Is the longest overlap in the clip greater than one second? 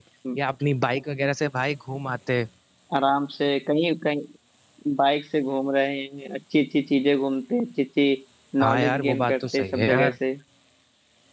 Yes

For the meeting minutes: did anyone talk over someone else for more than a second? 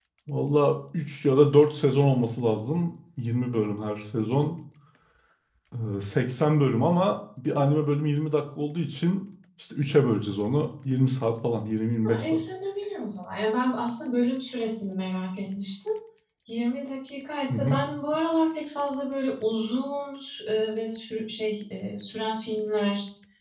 No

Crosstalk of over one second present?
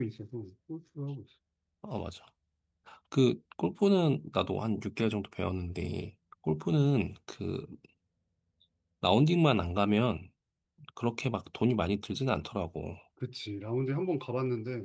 No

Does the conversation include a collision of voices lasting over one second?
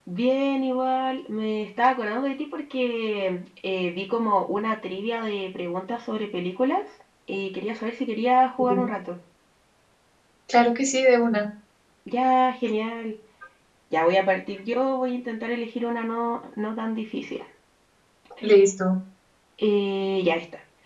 No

